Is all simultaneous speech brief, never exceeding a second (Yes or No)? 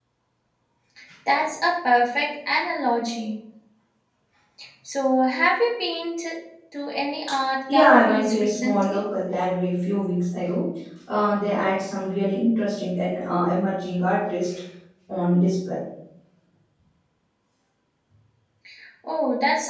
No